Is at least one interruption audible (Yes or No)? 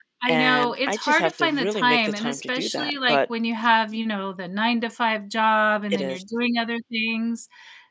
Yes